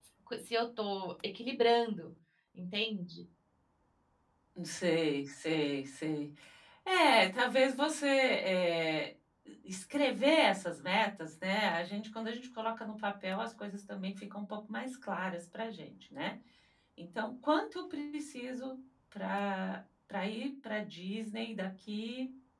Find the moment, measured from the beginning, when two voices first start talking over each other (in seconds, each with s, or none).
none